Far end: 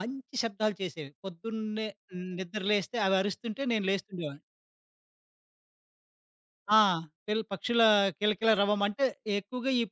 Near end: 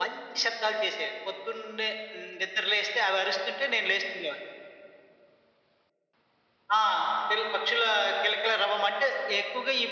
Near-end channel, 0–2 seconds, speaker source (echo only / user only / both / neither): echo only